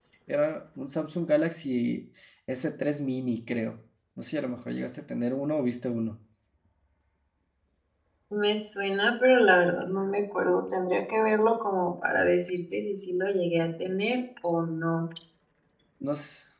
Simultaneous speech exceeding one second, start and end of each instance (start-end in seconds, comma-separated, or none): none